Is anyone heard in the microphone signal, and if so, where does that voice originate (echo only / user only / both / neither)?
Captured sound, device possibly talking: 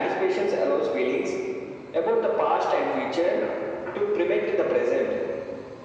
echo only